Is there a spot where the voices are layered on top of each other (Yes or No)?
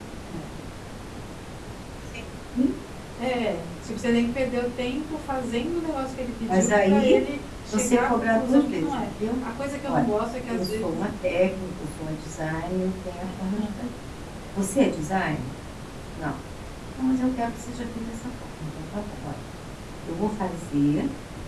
Yes